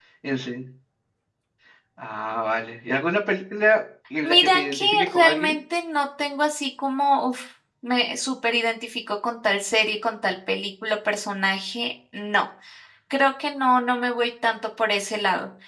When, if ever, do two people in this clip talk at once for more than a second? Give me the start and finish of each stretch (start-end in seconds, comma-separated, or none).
4.2-5.5